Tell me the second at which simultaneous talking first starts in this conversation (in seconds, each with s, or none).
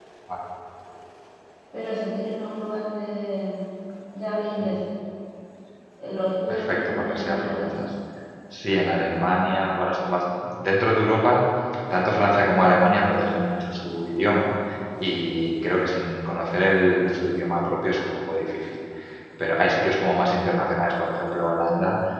6.5 s